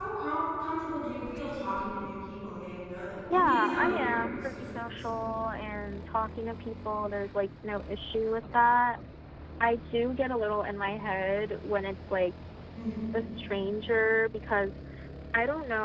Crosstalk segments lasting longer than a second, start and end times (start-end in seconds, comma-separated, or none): 3.3-5.2